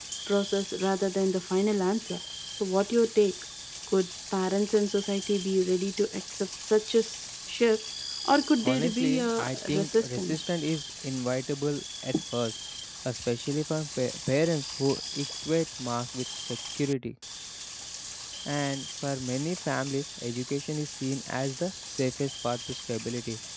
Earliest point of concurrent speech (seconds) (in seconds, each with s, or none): 8.6 s